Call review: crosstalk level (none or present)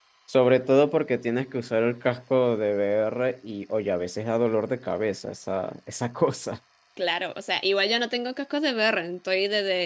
none